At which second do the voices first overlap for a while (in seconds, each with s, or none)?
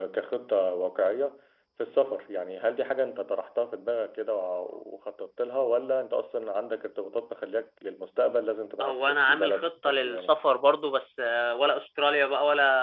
8.8 s